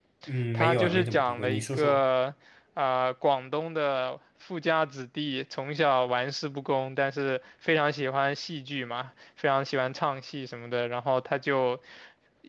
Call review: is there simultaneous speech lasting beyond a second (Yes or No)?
Yes